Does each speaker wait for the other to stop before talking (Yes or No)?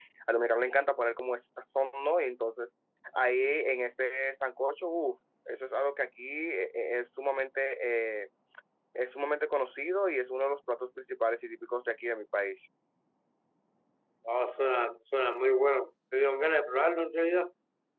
Yes